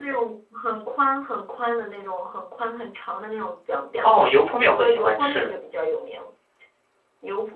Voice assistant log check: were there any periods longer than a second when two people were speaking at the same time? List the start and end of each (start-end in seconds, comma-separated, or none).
4.0-5.5